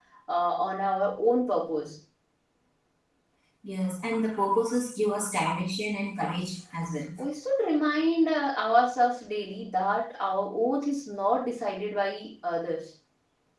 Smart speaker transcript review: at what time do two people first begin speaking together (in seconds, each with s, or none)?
none